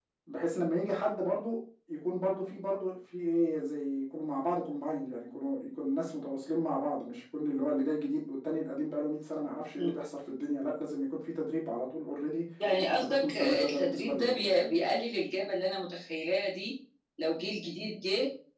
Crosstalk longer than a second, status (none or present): present